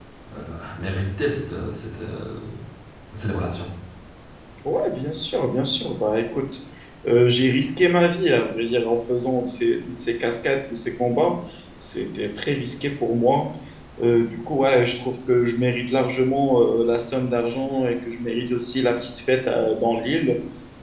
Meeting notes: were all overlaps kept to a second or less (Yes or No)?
Yes